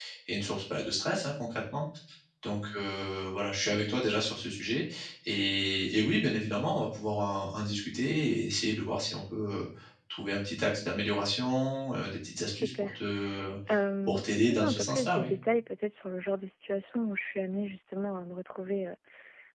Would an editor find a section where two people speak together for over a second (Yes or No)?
Yes